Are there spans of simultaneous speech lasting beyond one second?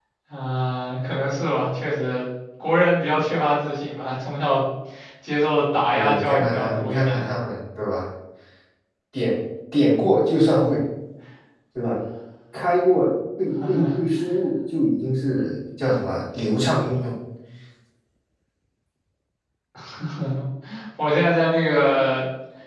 Yes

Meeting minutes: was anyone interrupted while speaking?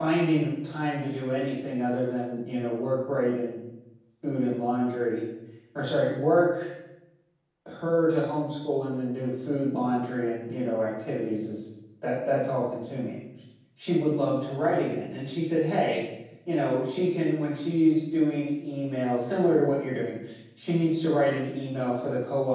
No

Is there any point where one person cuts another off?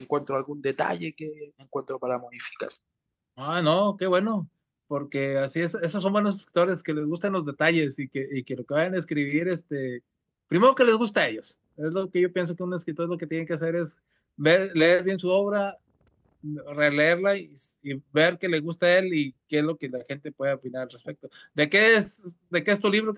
No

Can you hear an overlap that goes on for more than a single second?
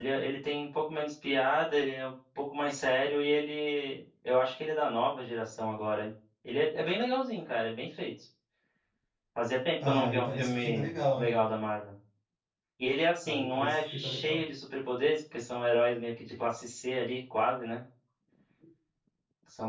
Yes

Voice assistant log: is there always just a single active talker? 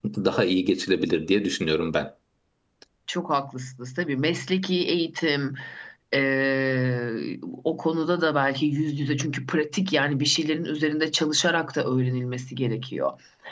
Yes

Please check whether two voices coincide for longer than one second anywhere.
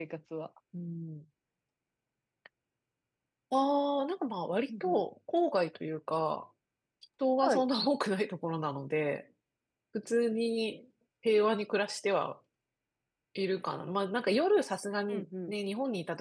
No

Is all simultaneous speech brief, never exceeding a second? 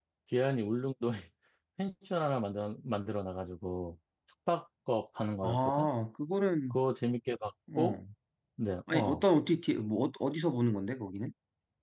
Yes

